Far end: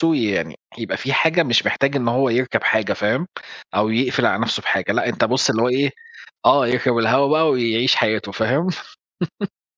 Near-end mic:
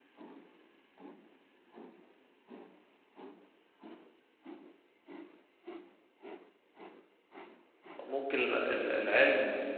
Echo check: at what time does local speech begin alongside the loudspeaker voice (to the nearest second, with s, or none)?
8 s